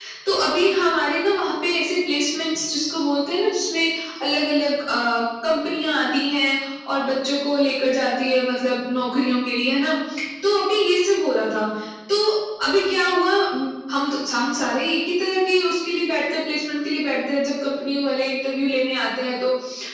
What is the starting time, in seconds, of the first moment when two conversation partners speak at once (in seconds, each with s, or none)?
none